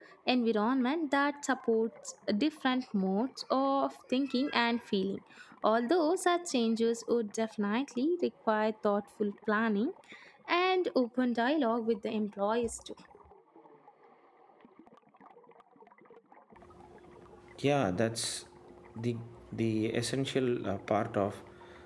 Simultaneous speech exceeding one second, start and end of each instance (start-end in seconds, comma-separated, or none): none